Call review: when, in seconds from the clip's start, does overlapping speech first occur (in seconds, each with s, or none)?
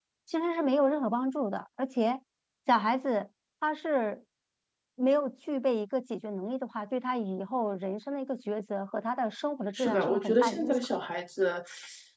9.8 s